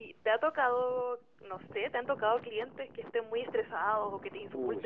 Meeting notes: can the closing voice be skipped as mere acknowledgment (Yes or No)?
No